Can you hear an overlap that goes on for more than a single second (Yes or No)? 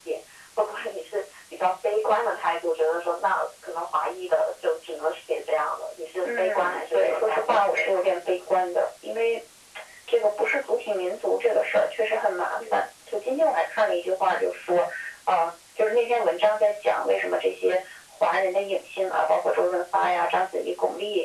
Yes